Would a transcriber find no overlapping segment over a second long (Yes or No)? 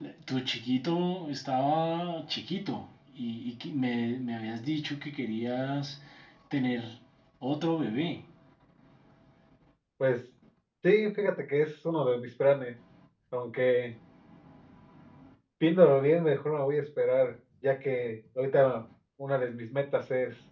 Yes